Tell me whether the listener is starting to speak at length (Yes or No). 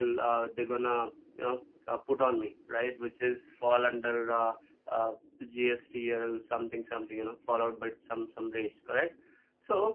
No